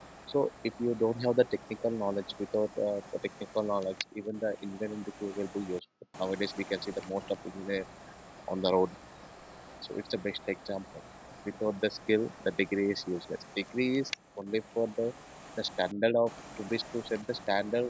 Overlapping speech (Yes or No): No